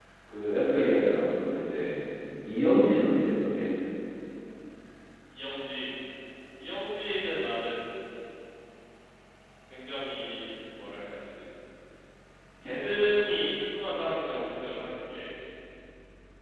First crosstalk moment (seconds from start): none

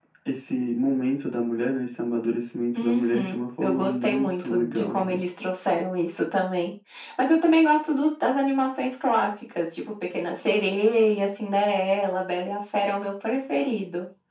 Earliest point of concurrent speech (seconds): 2.8 s

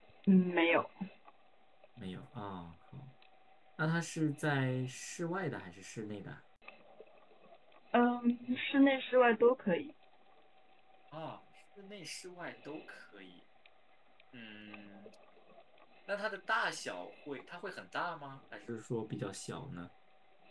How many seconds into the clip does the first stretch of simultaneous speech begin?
none

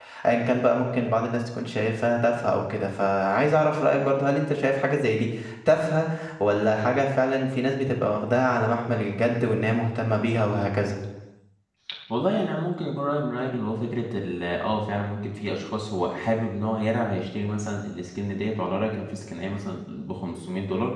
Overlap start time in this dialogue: none

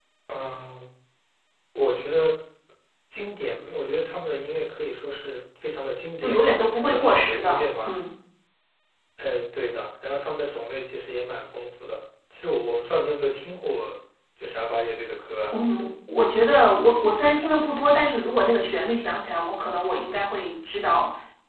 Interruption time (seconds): 6.2 s

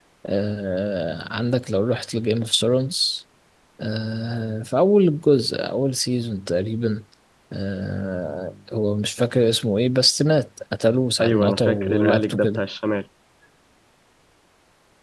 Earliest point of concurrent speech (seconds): 11.2 s

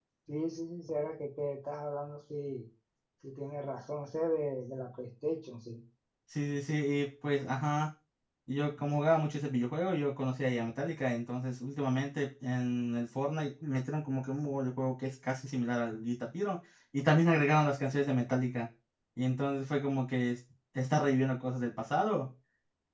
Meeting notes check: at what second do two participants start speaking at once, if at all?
none

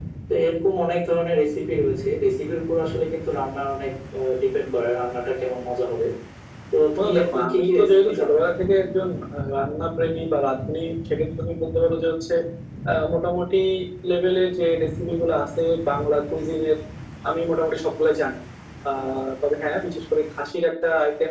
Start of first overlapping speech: 7.0 s

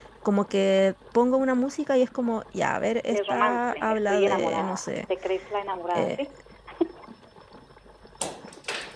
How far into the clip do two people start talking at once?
3.1 s

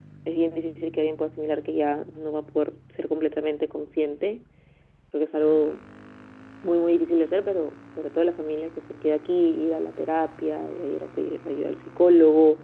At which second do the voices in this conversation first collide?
none

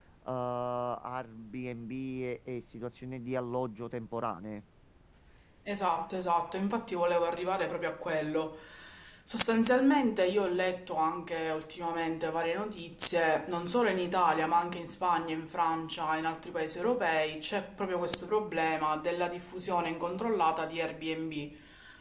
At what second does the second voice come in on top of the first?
none

